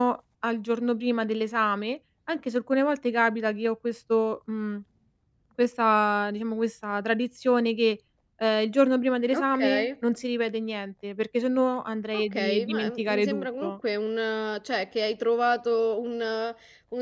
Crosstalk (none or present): present